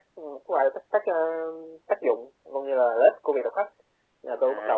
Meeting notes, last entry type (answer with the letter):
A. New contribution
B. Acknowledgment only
A